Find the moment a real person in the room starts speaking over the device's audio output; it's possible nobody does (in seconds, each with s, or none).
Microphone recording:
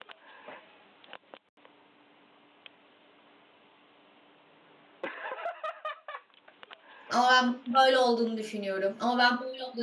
7.1 s